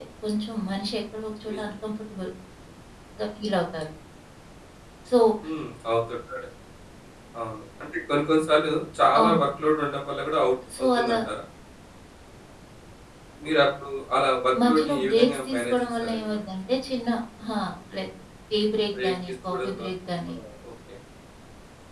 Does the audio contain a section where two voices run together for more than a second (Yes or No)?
Yes